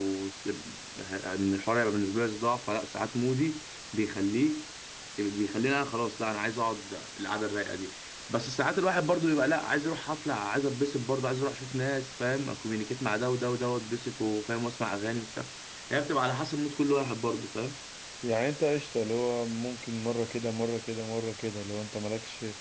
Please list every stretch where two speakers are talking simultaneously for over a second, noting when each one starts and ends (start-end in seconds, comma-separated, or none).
none